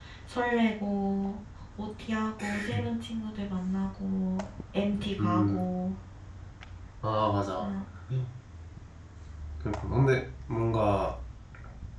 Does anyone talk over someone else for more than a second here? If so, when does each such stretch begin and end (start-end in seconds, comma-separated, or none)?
none